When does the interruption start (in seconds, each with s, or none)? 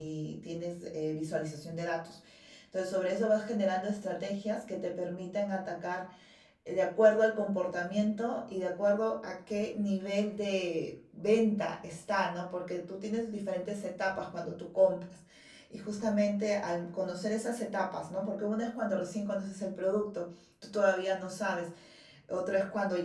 none